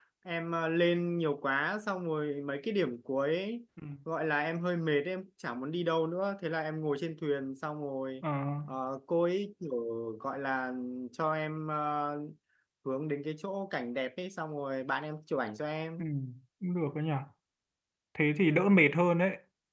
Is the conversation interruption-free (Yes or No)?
Yes